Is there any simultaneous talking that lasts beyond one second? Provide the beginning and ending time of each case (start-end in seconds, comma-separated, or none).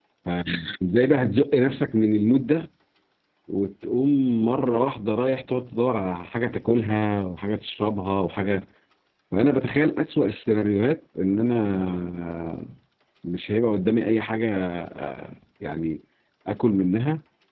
none